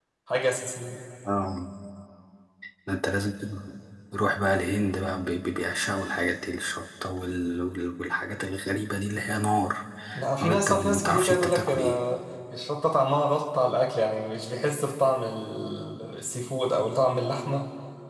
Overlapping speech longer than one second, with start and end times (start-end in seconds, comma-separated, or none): 10.4-12.0